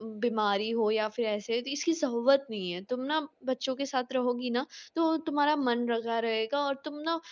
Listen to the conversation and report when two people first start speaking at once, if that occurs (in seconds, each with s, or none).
none